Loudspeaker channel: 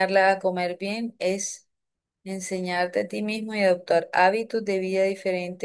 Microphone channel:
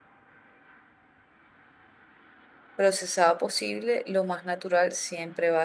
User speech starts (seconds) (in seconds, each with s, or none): 2.8 s